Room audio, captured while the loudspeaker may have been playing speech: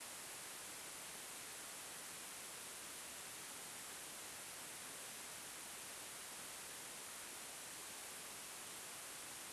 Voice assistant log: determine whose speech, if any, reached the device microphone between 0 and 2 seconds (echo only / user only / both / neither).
neither